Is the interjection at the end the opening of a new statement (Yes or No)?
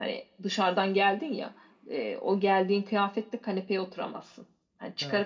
No